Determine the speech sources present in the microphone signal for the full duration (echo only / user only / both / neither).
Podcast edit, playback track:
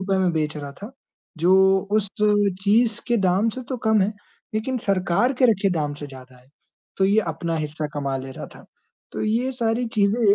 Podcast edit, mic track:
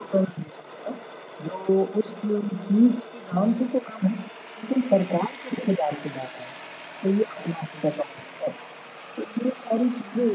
echo only